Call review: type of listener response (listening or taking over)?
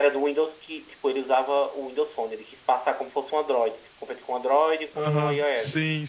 taking over